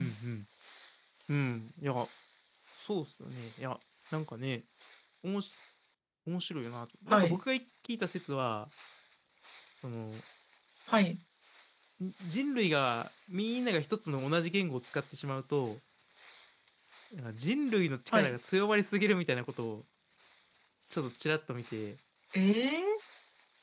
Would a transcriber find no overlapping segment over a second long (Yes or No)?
Yes